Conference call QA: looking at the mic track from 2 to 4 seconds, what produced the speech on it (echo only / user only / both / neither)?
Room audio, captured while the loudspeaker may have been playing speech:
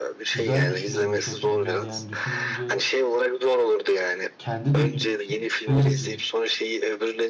both